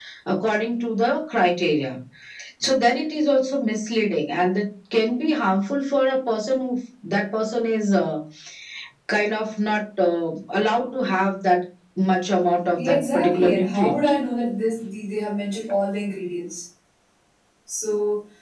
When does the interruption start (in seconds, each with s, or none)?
12.8 s